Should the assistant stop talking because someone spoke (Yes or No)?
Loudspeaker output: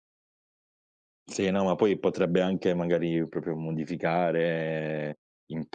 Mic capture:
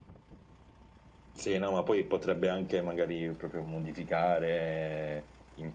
No